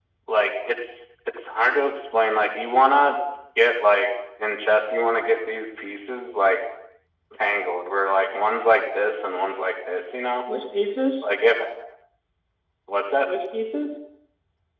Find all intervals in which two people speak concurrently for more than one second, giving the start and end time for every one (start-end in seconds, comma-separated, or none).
none